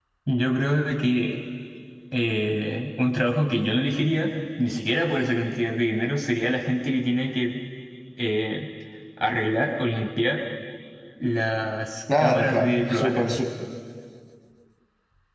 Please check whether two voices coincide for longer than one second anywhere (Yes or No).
Yes